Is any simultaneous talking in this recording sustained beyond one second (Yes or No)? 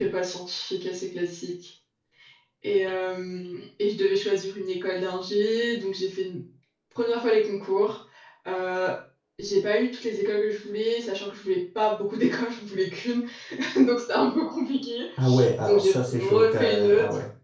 Yes